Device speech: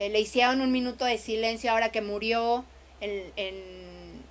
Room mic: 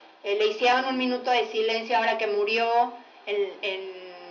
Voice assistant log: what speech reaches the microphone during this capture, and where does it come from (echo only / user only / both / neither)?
echo only